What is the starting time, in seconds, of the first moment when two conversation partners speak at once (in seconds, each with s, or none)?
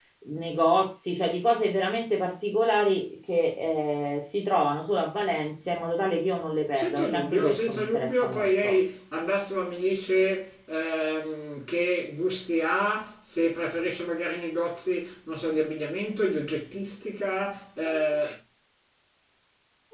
6.8 s